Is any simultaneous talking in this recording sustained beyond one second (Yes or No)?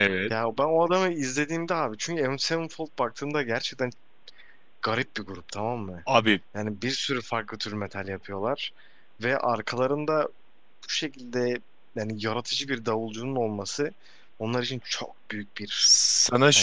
No